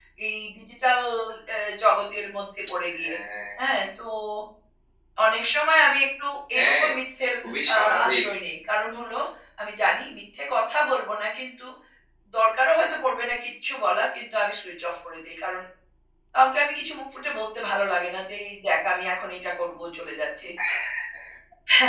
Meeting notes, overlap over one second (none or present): none